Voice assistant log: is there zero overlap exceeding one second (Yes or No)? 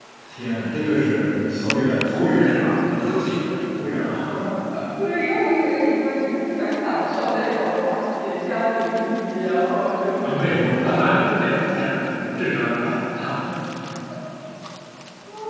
No